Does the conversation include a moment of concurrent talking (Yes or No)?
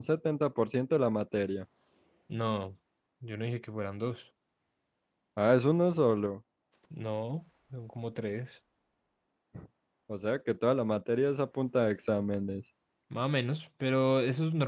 No